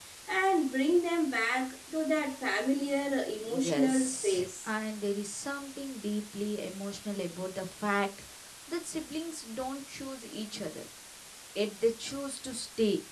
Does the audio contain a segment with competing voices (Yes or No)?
Yes